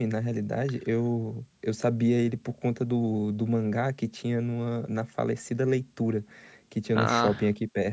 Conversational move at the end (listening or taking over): listening